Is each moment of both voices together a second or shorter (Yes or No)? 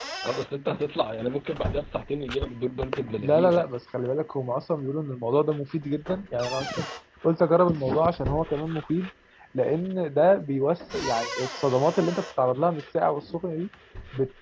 Yes